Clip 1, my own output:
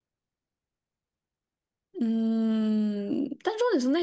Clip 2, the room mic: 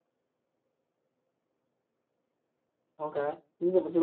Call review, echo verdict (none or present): none